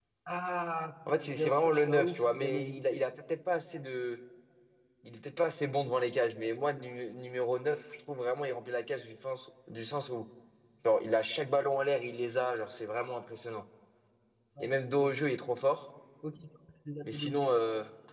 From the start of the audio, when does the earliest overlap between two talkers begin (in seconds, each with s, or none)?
1.1 s